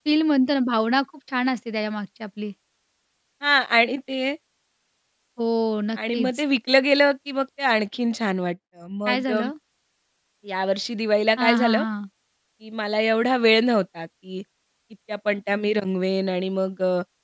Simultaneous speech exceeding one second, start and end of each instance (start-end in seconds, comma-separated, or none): none